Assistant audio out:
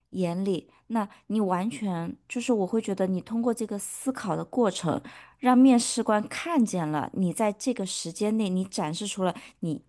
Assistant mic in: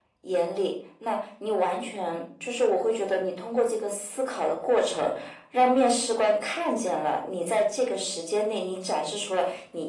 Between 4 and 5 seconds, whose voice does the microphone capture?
echo only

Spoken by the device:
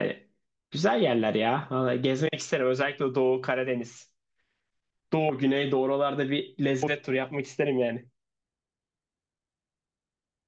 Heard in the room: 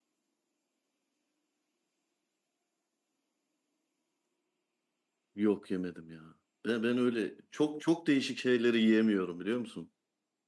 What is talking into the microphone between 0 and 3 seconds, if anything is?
neither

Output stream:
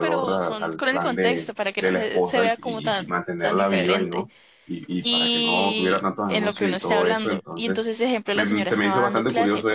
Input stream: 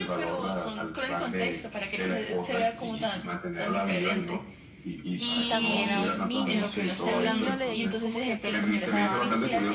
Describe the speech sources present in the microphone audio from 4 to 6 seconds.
both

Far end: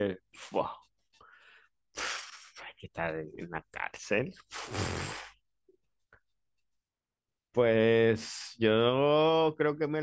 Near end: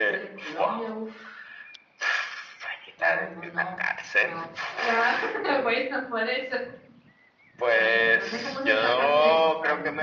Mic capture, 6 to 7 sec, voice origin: user only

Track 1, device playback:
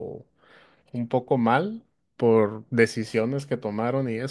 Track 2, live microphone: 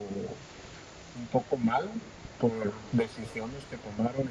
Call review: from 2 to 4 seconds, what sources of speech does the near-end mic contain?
echo only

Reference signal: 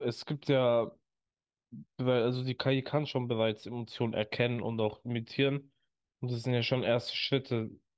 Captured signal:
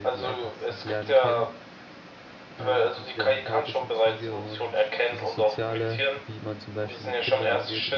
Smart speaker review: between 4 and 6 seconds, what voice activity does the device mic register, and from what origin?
both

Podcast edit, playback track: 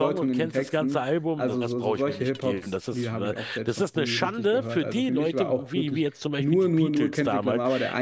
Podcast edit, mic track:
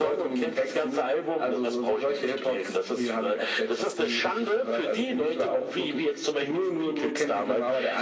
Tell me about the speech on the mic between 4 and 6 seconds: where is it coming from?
echo only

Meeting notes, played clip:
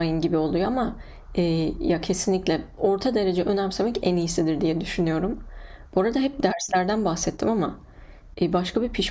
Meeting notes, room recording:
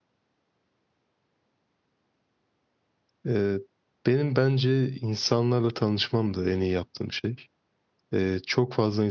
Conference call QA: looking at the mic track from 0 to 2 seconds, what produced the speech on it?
neither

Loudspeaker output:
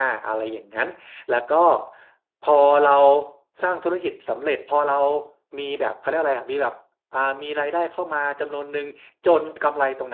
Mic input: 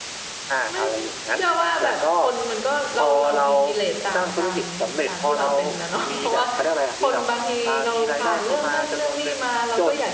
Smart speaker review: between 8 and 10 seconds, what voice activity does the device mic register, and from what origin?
both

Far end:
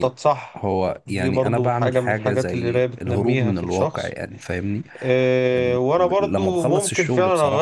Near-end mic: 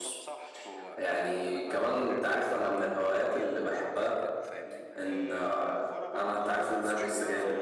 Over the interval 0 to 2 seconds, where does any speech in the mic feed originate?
both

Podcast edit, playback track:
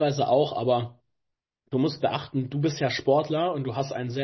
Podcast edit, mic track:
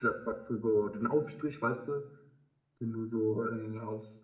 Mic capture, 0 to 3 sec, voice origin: user only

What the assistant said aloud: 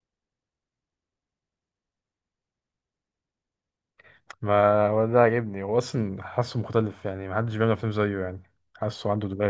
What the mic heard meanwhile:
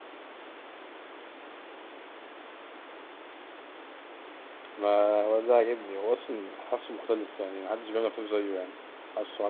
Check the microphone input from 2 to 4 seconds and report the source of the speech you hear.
neither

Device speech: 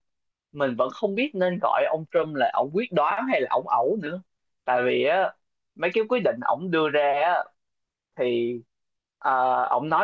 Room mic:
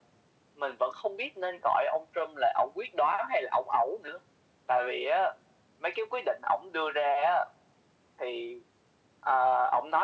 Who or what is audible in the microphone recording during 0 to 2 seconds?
echo only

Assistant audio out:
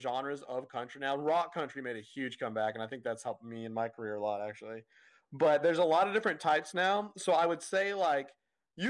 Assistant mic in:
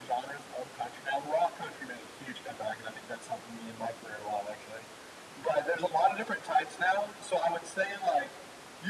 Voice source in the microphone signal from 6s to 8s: echo only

